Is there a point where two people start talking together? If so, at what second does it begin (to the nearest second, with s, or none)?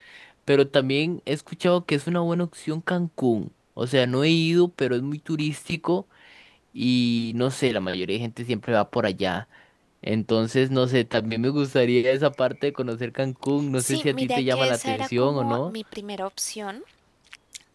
14 s